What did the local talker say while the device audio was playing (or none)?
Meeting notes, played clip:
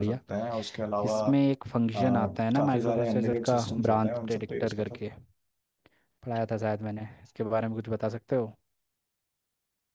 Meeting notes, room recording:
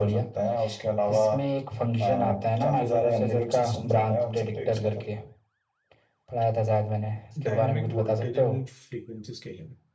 डायनेमिक वोल्टेज एंड फ्रीक्वेंसी स्केलिंग